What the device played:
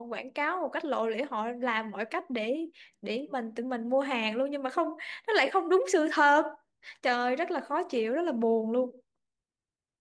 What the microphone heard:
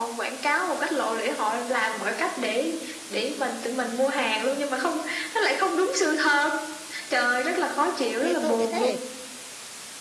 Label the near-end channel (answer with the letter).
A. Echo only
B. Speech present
B